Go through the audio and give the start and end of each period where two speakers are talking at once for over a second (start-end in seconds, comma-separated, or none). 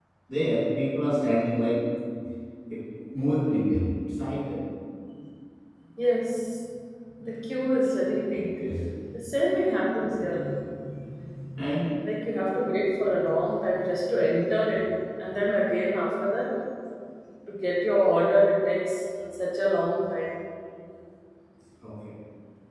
none